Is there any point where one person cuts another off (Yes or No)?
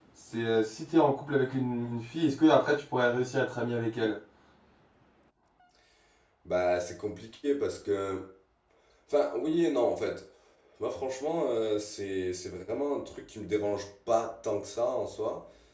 No